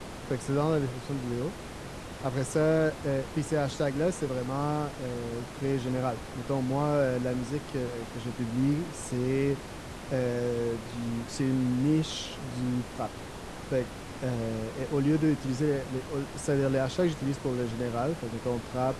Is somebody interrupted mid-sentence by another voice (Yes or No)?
No